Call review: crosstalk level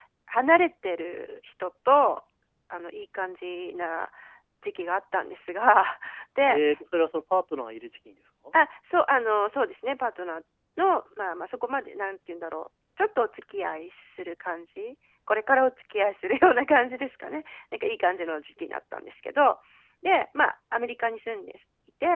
none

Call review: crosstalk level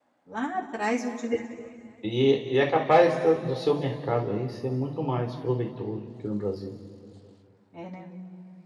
none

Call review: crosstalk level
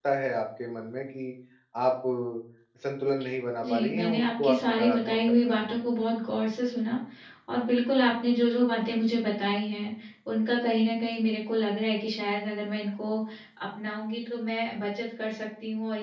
present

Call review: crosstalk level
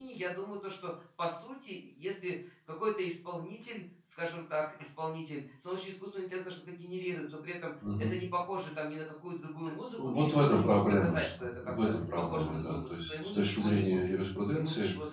present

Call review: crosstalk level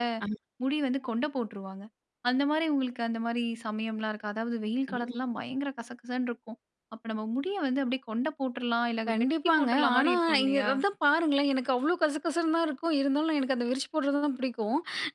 present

